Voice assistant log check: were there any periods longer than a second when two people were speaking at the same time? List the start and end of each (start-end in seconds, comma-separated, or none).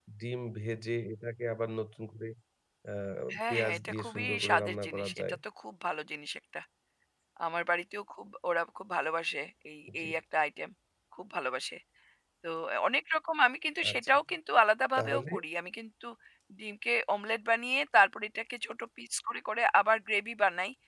3.5-5.2